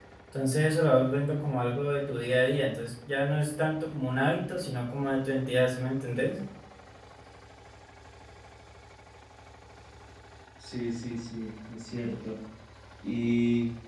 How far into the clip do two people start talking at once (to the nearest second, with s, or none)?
none